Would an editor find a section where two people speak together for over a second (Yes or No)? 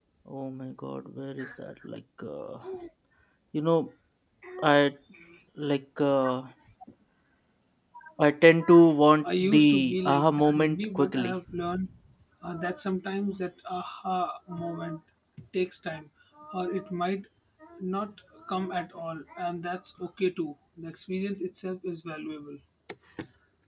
Yes